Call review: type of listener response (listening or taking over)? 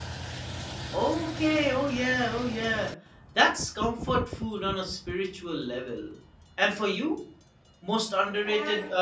listening